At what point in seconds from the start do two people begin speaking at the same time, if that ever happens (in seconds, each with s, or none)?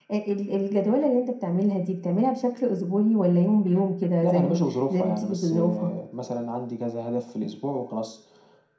4.2 s